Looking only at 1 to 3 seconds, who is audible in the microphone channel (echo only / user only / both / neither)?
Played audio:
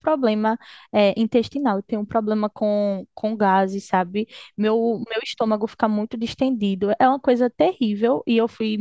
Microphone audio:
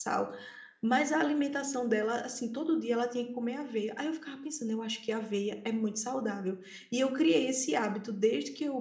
user only